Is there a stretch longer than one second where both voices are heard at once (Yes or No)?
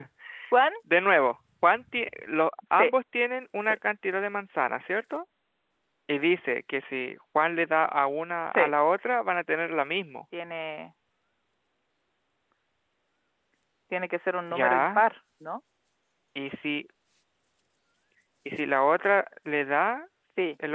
No